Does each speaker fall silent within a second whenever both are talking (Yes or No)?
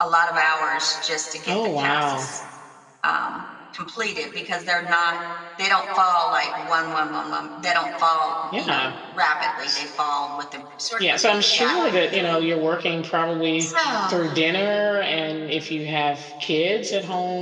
No